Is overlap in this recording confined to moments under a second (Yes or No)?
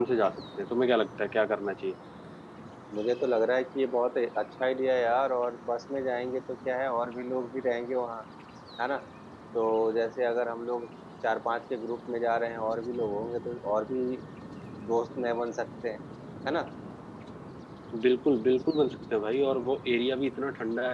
Yes